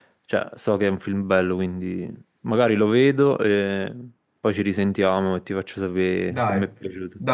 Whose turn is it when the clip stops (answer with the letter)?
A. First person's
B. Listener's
B